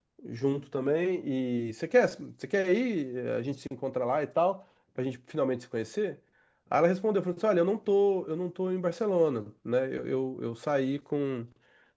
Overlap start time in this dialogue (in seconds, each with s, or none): none